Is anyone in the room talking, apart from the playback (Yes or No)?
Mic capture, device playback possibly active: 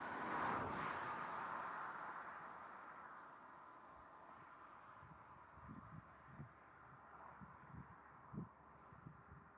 No